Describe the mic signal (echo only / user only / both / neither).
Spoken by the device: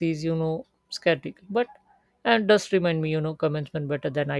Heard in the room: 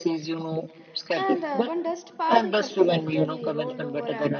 both